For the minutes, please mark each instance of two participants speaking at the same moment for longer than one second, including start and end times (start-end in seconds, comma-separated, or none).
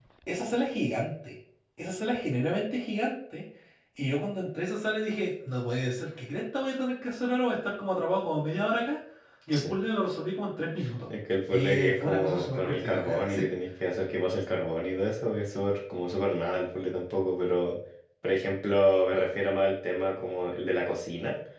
11.5-13.4